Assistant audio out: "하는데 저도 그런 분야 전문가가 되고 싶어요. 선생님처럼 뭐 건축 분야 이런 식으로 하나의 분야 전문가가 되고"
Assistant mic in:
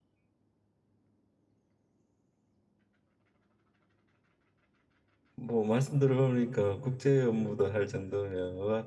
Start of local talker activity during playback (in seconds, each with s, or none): 5.4 s